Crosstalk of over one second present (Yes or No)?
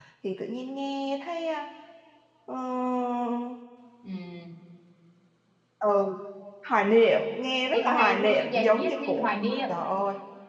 Yes